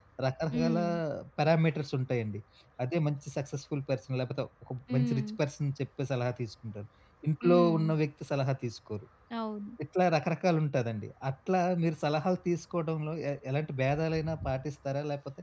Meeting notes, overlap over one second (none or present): none